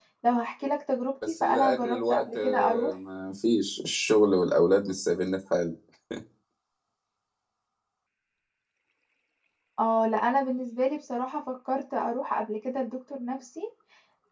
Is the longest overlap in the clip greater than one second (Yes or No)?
Yes